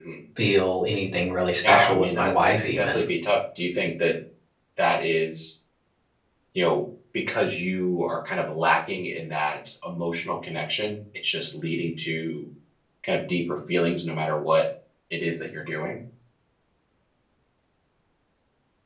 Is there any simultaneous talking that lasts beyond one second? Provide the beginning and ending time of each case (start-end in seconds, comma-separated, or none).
1.6-3.0